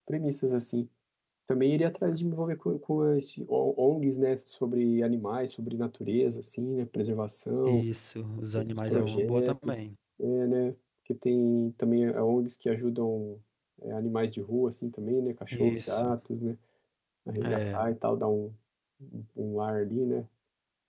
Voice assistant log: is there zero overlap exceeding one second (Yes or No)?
No